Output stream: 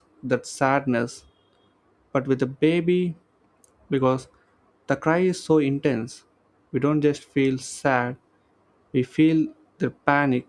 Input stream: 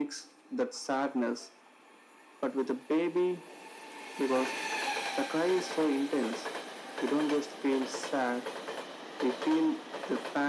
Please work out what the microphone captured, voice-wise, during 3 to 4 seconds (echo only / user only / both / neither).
echo only